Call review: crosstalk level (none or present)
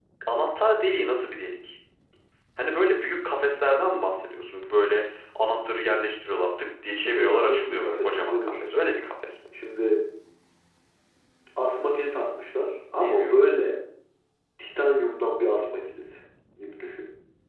present